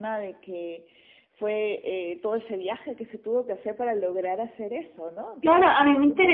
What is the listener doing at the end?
taking over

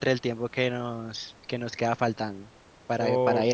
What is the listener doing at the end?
taking over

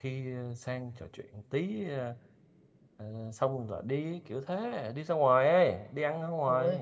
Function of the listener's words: taking over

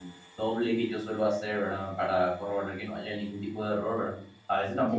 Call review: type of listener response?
listening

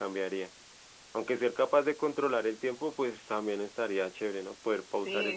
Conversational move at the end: taking over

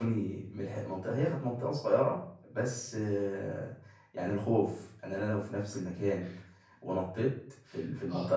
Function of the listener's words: listening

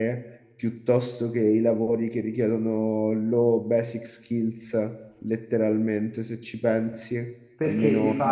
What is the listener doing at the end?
taking over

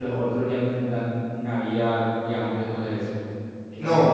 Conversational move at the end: taking over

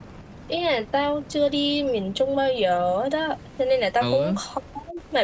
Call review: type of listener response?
listening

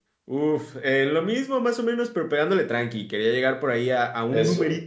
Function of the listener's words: listening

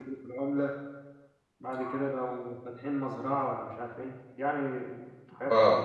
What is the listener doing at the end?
taking over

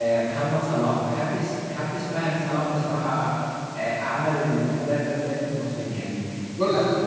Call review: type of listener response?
listening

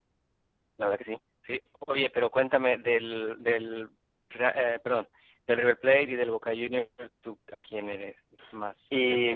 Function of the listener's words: taking over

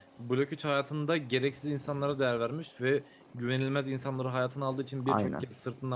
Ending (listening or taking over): listening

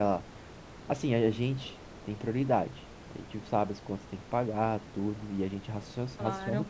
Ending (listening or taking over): listening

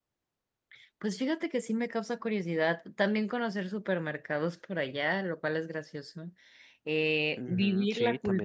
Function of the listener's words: taking over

